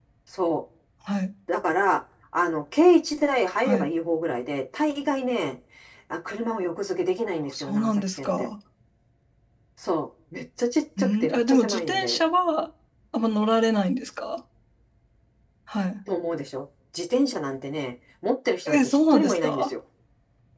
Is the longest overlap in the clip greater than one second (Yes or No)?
Yes